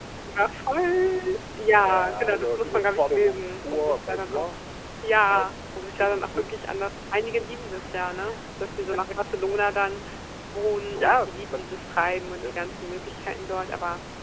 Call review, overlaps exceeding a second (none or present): present